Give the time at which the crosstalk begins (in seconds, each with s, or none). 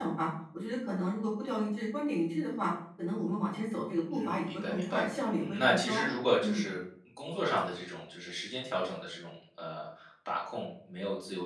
4.2 s